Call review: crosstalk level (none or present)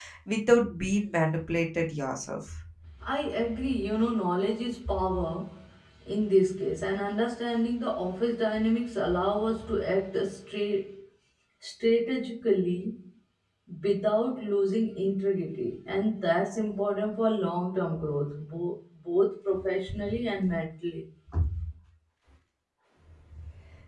none